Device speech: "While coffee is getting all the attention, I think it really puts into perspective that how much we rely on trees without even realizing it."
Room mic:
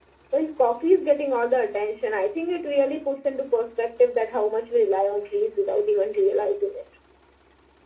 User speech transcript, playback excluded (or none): none